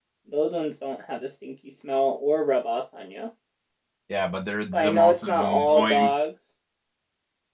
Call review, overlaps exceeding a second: present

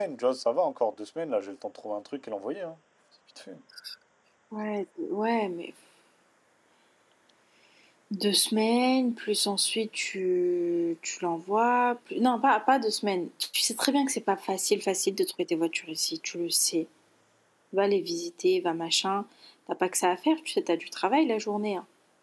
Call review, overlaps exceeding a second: none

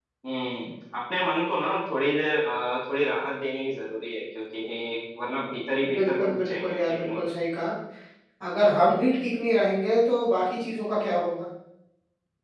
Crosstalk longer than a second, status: present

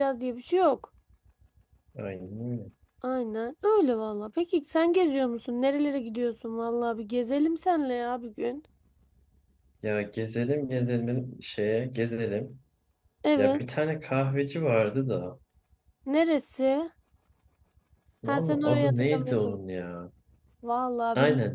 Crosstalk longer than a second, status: present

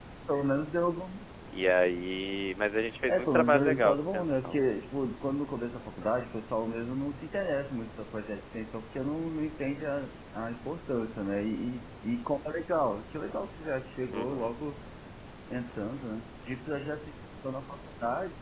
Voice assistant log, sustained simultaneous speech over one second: present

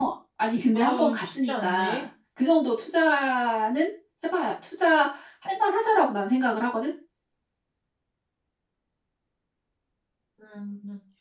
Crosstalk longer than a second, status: present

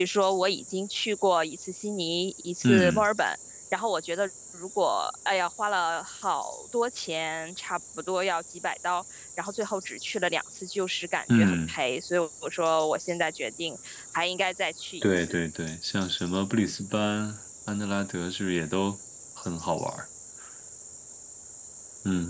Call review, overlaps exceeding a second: none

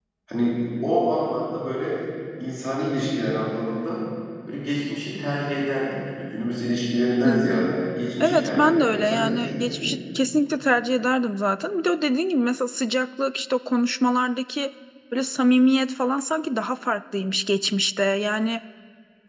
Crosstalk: present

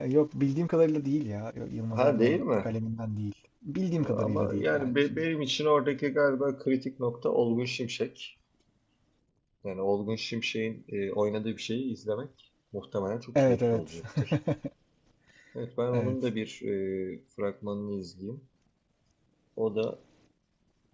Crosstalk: present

